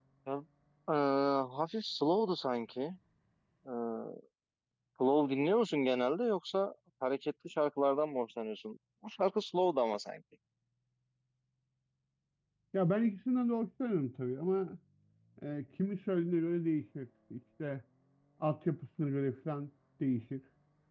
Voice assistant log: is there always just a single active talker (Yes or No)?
Yes